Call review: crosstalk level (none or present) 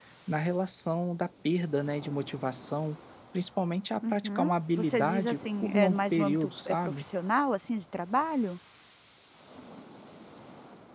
present